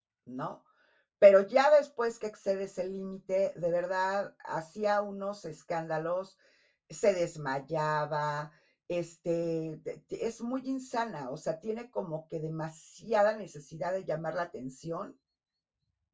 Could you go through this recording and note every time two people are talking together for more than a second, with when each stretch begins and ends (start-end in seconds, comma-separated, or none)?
none